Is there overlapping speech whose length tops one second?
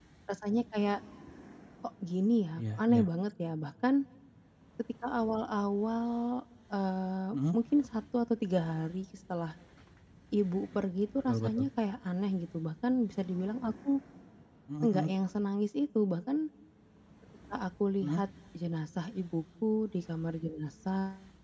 No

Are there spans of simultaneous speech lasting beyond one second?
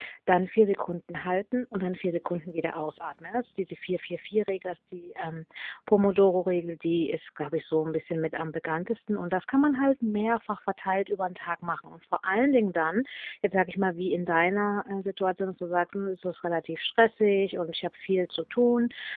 No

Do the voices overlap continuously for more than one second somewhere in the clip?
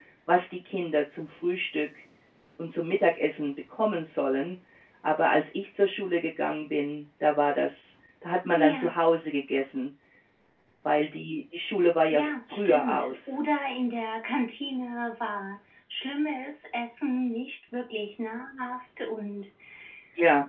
Yes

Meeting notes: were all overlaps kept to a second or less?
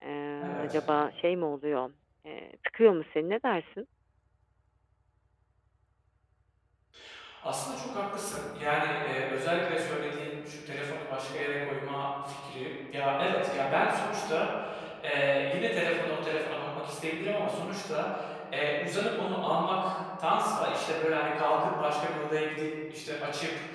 Yes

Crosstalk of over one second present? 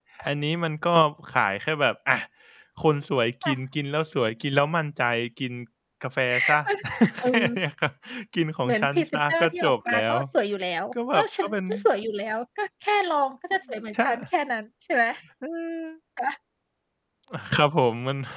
Yes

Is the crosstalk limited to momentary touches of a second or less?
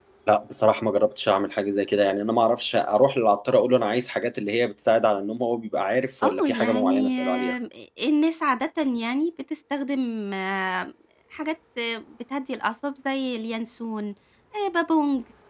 No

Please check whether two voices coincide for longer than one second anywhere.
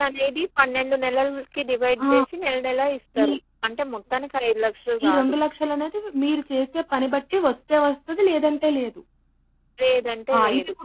No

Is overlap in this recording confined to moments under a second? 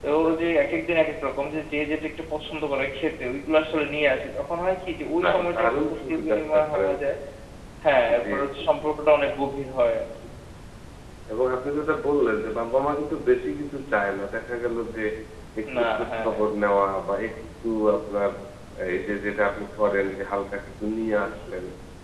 No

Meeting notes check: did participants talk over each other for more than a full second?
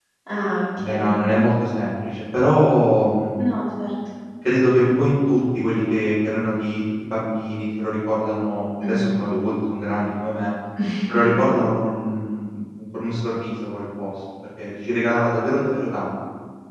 No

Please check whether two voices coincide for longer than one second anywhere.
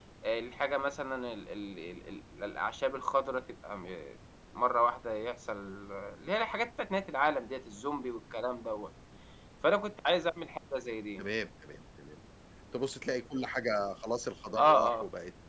No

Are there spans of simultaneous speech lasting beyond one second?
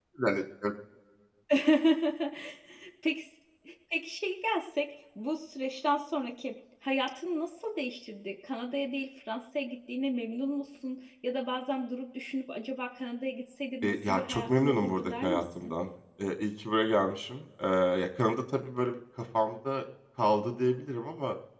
Yes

